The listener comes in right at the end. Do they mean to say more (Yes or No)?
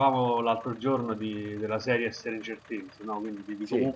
No